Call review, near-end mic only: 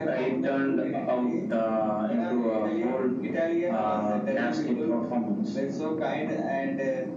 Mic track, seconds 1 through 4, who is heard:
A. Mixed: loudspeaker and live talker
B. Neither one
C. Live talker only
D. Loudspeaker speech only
D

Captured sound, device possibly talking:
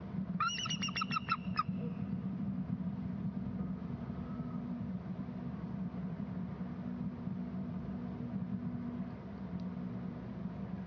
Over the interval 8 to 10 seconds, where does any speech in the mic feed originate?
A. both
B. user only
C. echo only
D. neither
D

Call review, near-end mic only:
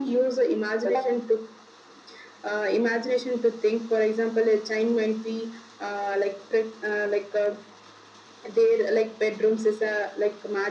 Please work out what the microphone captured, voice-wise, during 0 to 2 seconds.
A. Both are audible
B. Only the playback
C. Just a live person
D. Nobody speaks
B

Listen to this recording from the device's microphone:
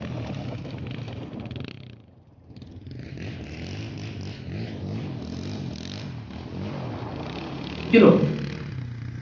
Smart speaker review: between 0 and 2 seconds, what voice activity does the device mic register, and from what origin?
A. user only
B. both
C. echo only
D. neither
D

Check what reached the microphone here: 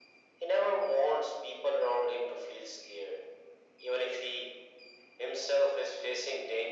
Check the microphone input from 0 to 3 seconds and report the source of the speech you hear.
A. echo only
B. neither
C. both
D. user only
A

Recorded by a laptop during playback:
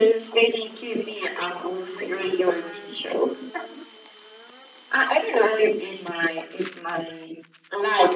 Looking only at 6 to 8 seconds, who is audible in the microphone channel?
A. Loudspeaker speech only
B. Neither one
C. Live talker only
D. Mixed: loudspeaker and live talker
A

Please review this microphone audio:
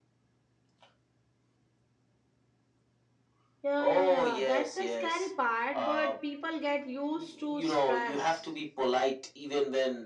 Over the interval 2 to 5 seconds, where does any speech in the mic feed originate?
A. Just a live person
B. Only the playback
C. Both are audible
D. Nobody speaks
C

